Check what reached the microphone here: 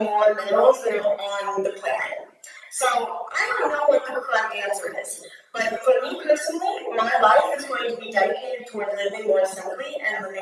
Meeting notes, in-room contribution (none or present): none